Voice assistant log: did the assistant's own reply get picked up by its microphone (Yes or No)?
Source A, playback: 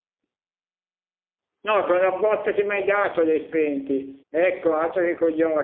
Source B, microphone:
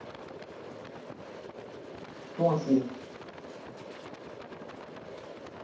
No